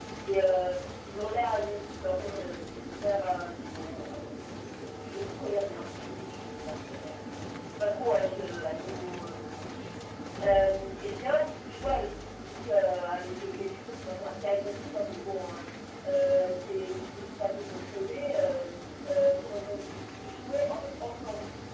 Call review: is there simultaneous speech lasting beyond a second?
Yes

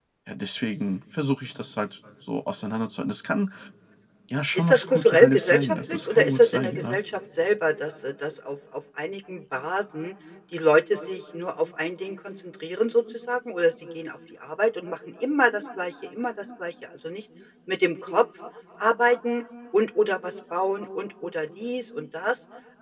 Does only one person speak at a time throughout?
No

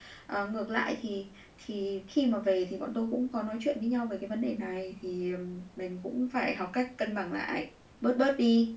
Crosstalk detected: No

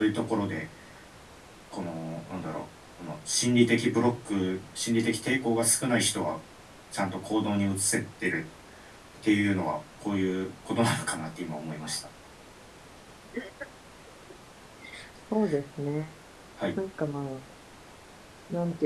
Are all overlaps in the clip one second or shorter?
Yes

